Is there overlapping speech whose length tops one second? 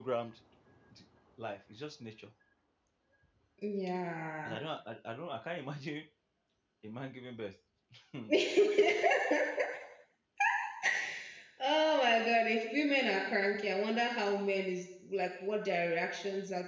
No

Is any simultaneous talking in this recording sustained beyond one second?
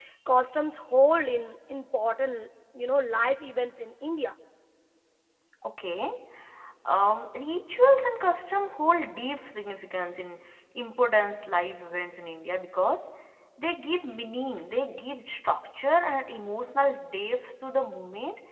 No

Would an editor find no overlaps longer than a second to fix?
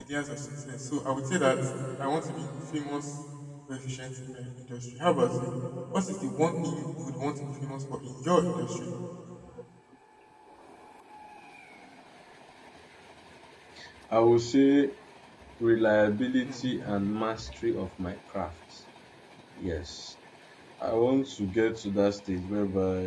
Yes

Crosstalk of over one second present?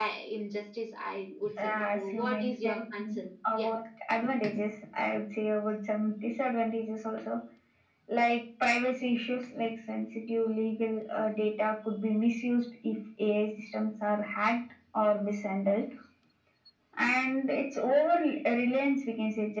Yes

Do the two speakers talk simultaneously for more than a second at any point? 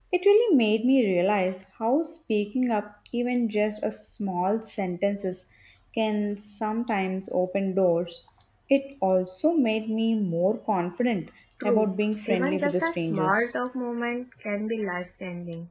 Yes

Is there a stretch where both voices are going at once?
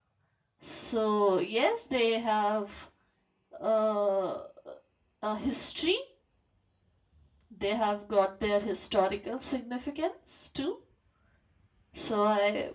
No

